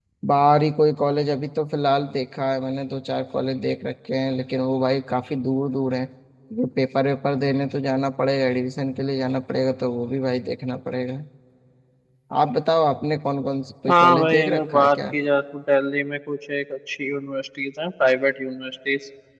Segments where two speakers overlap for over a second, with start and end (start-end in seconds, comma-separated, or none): 13.9-15.2